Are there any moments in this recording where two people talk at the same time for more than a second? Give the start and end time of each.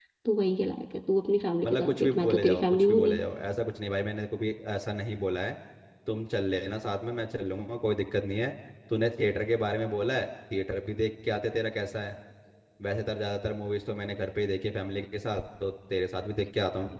1.6-3.0

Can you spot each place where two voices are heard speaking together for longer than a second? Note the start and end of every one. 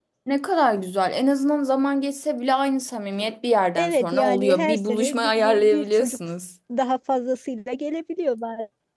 3.8-6.2

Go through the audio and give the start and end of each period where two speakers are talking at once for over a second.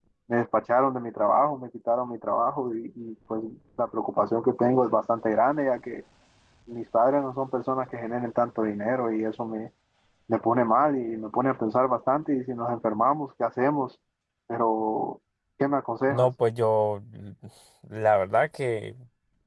none

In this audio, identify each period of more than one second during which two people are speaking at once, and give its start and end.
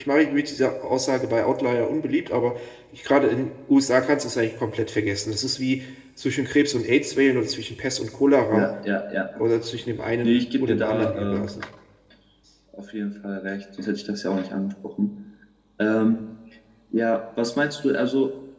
10.2-11.5

